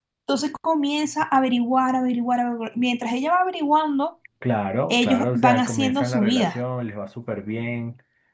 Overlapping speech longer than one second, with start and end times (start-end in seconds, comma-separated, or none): 4.9-6.6